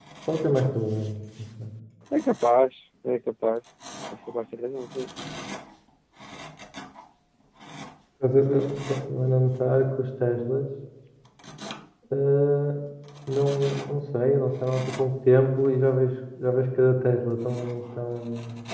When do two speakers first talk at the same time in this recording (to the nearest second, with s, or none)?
none